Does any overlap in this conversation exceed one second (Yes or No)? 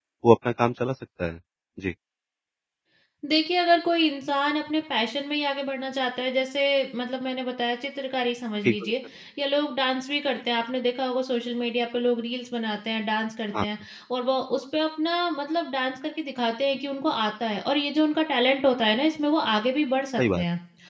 No